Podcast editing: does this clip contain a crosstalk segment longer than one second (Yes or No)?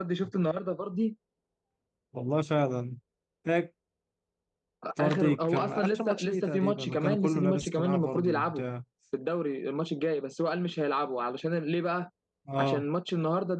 Yes